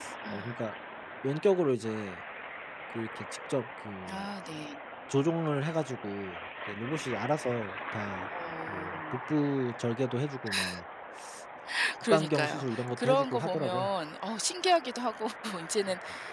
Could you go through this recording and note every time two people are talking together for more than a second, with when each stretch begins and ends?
12.0-13.9

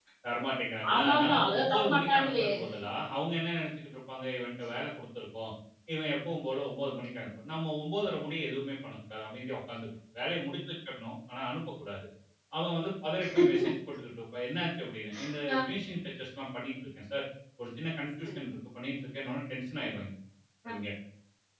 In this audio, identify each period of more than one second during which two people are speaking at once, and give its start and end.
0.9-2.4

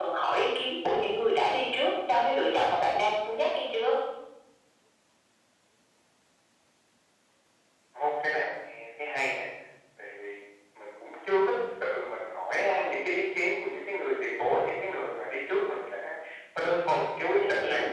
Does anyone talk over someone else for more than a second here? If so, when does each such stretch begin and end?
none

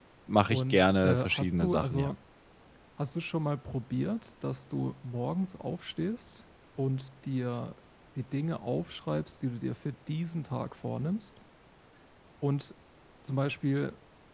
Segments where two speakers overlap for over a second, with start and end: 0.5-2.1

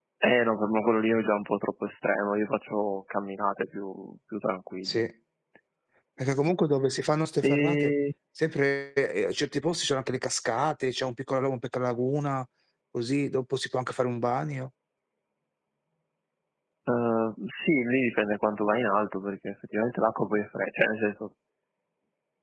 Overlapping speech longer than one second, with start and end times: none

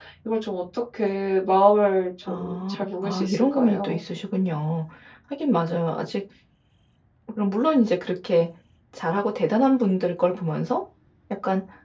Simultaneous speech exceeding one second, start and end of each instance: 2.3-4.0

